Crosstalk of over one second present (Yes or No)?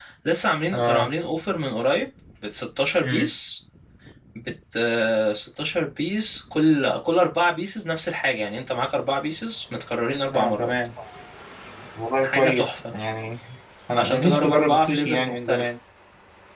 Yes